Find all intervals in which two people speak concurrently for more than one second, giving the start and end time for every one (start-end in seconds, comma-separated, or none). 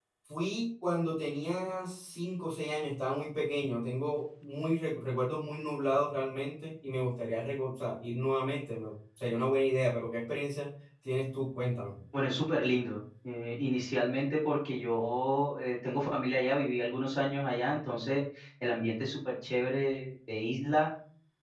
none